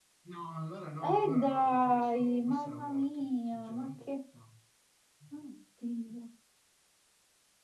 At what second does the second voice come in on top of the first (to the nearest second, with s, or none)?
1 s